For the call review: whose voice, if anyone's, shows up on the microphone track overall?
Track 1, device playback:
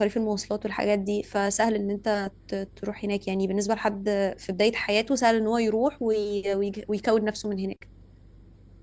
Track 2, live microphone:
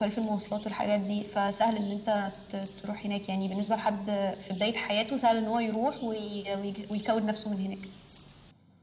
echo only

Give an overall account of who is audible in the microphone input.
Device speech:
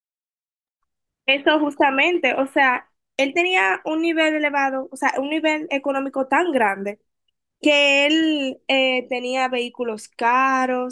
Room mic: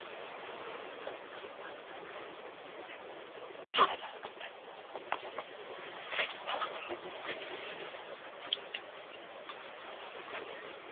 neither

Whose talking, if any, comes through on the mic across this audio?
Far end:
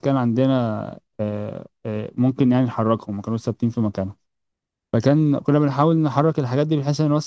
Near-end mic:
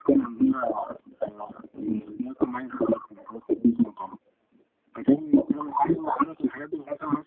both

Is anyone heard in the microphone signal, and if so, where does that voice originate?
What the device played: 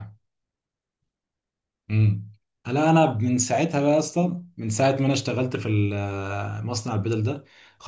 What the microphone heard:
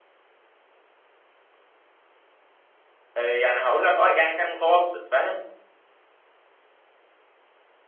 user only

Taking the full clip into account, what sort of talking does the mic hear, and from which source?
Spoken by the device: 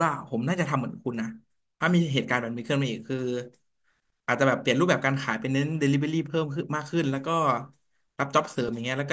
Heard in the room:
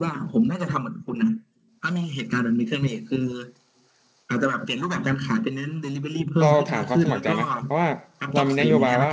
both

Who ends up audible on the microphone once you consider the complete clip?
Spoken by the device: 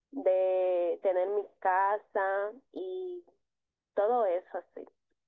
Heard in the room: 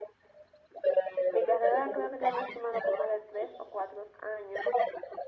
both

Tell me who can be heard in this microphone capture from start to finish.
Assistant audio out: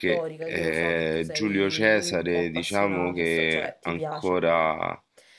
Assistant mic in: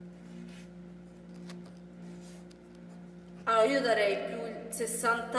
user only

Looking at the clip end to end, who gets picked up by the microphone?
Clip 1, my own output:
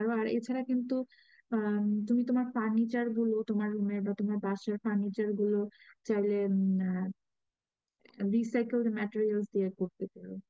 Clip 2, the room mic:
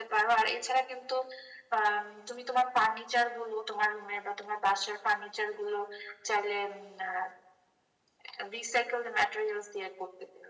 echo only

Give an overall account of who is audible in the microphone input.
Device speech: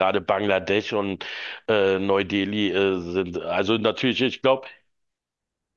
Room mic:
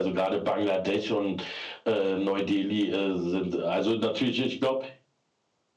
echo only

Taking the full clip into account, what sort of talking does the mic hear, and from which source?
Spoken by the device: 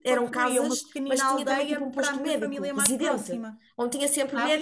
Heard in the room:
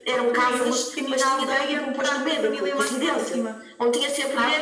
echo only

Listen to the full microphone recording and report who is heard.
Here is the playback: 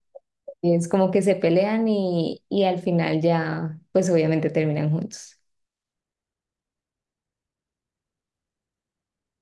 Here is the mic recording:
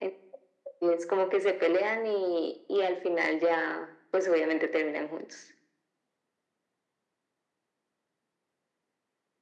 echo only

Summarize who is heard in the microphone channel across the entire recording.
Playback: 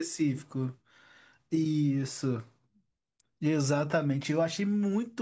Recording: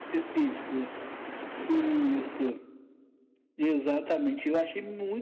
echo only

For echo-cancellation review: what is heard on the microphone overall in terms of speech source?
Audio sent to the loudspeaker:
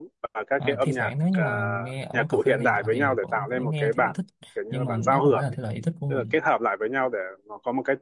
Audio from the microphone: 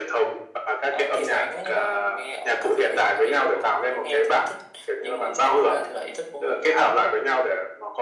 echo only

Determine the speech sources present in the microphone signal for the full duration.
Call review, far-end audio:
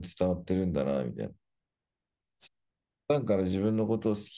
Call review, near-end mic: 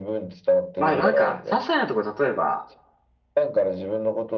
both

